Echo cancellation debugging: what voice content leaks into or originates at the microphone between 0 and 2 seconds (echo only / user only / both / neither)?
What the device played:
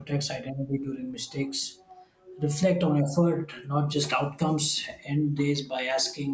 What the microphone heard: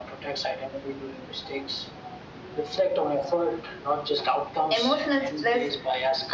echo only